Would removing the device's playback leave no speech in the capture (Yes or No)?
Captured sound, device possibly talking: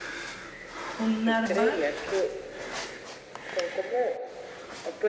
No